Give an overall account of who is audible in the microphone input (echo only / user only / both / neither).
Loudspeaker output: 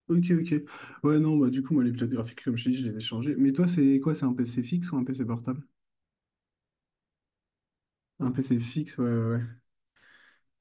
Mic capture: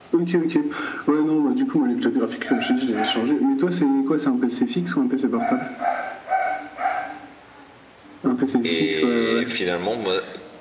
both